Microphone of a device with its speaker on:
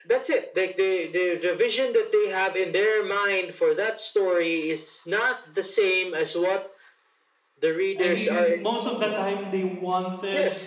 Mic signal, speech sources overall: both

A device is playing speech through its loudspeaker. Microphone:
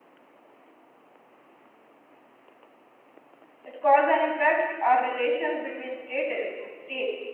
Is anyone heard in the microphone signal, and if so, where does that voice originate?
user only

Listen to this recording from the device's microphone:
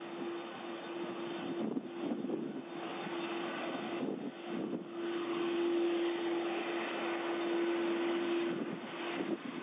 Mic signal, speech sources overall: neither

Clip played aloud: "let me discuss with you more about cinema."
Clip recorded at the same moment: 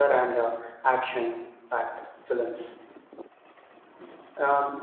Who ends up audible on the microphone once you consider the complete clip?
user only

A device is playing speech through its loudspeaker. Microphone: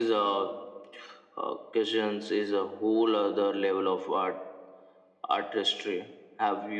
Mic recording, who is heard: echo only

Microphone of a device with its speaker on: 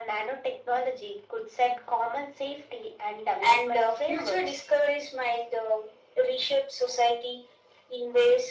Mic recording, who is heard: echo only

